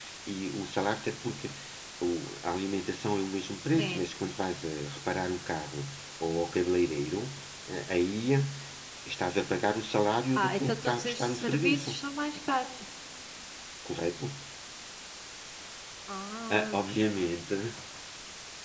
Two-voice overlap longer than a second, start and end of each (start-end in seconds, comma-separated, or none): 10.4-11.9